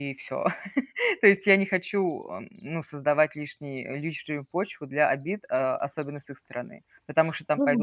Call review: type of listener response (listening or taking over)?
taking over